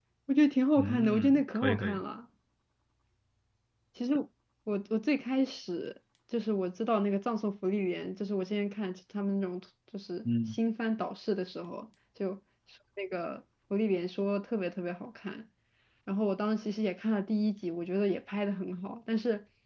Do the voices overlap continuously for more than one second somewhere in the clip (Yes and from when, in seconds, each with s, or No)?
Yes, from 0.8 s